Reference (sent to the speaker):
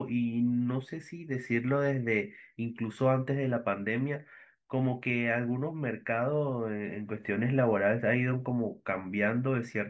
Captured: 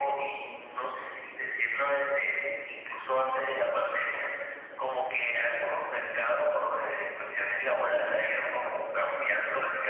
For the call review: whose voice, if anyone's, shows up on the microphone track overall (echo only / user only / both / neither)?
echo only